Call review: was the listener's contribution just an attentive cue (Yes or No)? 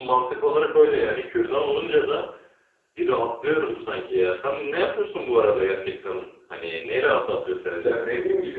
No